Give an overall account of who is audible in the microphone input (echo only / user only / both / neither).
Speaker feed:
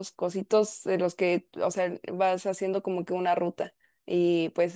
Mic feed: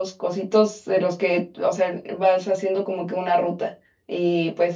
echo only